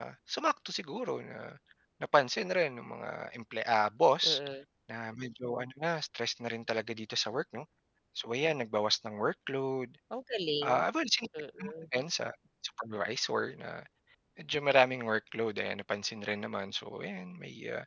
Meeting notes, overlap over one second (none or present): none